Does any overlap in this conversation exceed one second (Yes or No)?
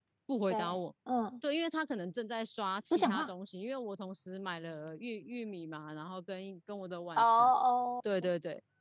No